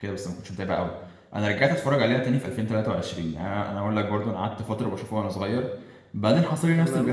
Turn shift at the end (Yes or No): No